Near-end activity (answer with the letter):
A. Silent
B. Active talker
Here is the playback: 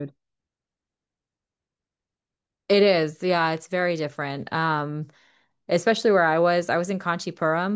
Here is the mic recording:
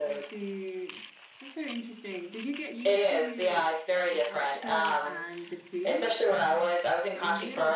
B